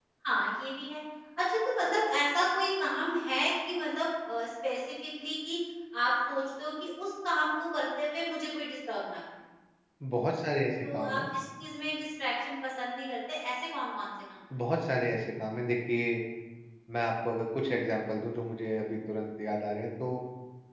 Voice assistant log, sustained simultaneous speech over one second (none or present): none